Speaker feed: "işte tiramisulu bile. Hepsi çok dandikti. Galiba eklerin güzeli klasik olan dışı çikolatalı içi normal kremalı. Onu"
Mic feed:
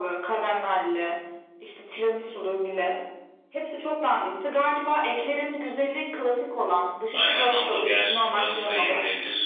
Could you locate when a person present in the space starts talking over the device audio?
7.1 s

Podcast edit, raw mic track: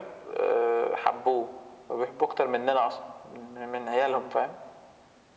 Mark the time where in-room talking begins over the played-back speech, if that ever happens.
none

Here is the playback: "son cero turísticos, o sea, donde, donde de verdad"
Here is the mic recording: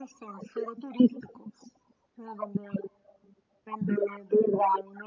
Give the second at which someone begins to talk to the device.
none

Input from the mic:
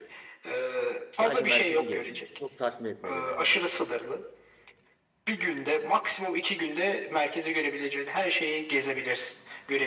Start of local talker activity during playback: 1.1 s

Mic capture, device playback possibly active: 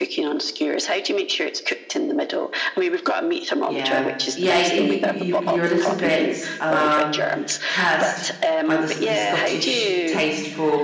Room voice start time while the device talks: 3.6 s

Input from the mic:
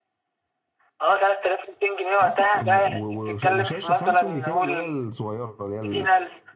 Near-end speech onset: 2.2 s

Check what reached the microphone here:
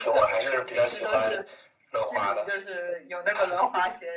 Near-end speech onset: none

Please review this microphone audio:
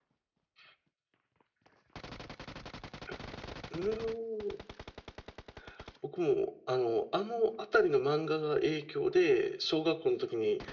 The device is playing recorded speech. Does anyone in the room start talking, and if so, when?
none

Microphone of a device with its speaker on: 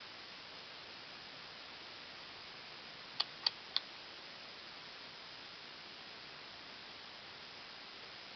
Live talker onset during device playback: none

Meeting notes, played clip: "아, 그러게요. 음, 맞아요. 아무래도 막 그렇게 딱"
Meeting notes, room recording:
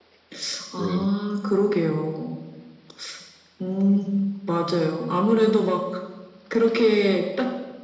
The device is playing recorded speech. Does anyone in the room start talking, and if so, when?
0.7 s

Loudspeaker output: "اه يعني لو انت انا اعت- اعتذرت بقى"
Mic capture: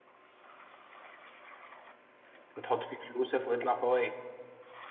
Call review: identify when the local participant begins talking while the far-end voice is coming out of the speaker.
2.6 s

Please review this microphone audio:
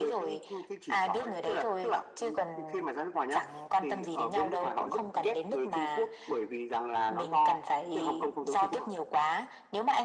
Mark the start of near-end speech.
none

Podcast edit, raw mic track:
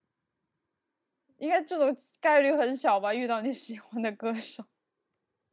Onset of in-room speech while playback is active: 1.4 s

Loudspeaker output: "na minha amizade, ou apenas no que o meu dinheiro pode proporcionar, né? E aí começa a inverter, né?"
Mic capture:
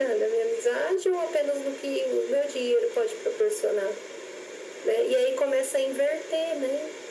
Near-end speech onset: none

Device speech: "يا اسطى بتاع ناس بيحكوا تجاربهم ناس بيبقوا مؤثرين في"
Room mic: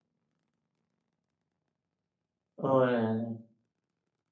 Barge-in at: 2.6 s

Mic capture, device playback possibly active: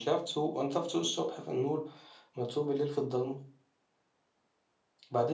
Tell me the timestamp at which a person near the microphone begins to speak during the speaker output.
none

